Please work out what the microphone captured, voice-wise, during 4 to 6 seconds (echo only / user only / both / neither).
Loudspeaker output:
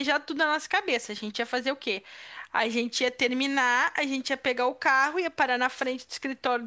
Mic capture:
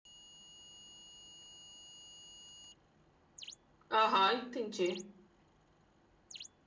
user only